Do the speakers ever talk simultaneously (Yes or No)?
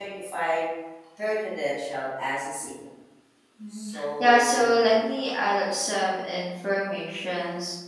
Yes